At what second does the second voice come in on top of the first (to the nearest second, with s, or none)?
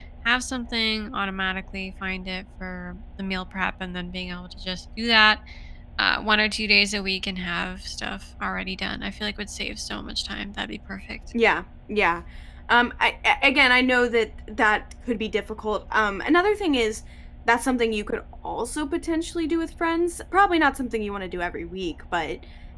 none